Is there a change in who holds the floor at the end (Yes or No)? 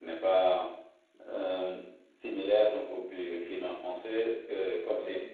No